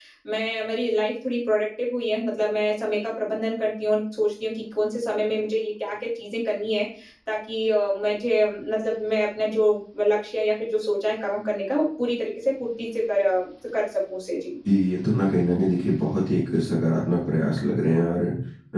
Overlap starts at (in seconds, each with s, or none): none